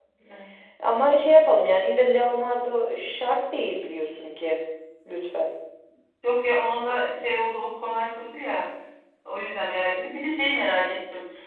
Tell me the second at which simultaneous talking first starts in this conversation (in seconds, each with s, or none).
none